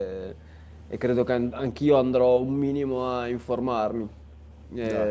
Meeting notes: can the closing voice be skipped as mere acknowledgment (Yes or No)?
Yes